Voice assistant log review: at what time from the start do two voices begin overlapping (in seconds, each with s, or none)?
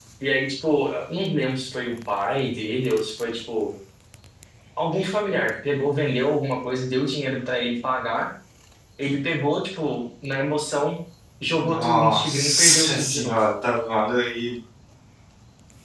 11.6 s